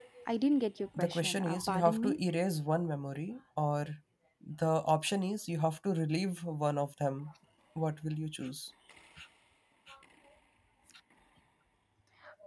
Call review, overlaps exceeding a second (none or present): present